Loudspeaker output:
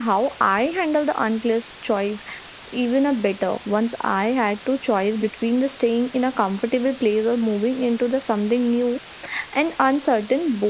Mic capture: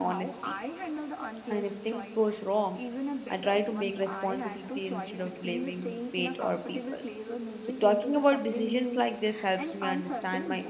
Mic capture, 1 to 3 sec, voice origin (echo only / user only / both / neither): both